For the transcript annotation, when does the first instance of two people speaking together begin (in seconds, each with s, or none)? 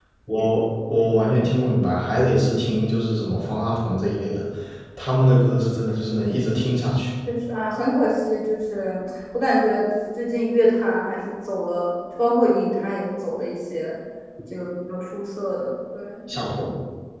none